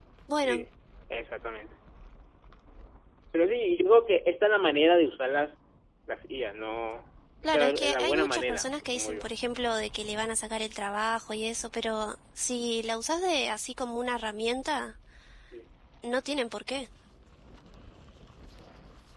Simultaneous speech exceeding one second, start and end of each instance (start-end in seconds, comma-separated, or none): 7.4-9.3